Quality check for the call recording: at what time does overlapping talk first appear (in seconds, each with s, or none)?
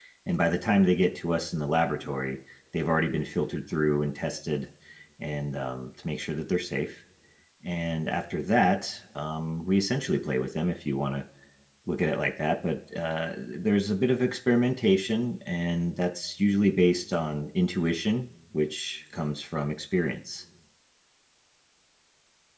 none